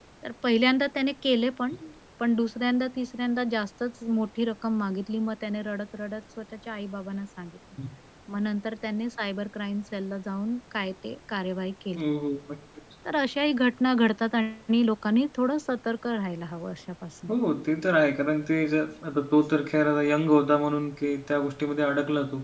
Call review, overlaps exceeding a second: none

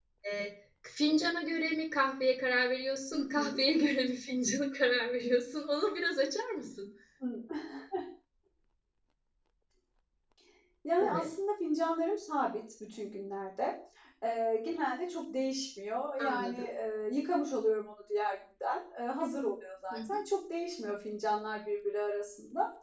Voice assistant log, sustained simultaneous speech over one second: none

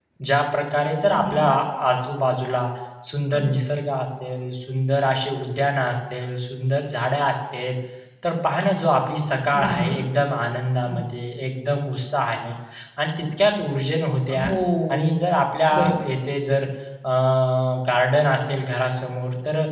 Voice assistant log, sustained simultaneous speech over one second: none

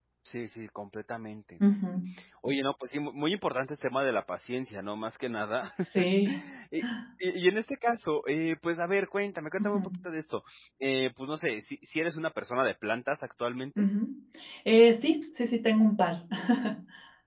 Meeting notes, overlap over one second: none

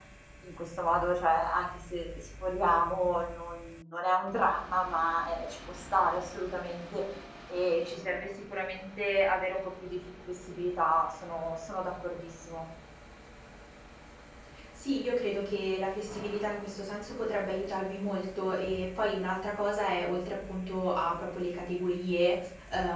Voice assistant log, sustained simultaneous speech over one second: none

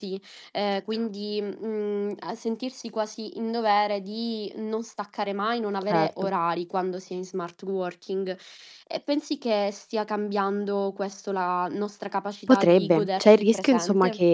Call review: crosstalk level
present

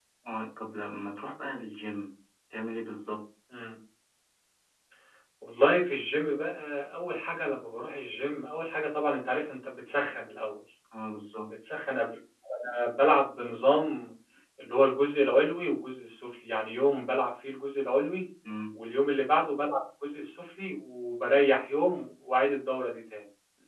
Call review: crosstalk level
none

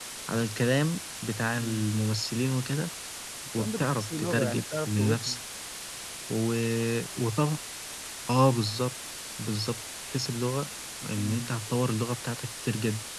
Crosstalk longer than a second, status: present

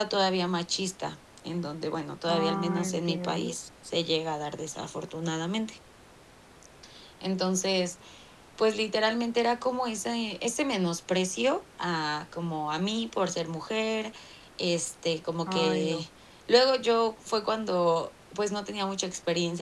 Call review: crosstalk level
present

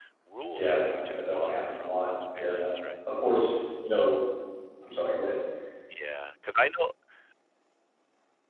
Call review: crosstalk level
present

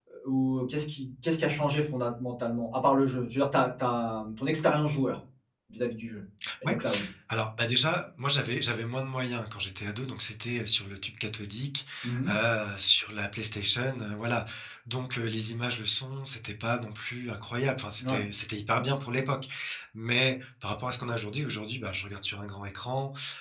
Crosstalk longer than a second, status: none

